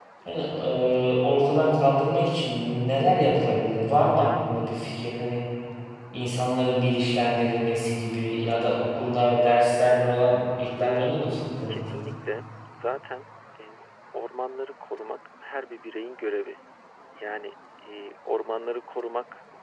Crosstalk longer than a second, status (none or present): none